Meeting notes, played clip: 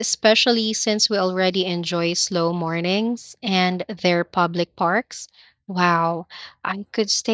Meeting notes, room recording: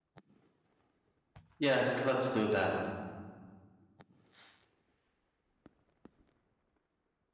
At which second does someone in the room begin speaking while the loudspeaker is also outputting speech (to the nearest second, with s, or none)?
2 s